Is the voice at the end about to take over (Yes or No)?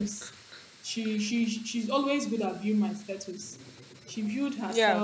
No